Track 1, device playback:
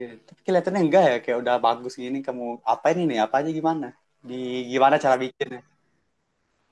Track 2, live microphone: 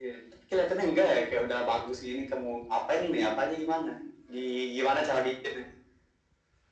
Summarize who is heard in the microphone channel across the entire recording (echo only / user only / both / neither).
echo only